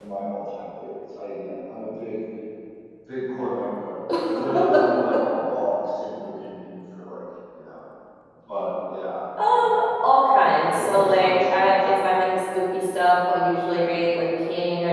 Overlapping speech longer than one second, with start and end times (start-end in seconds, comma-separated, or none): 9.5-11.8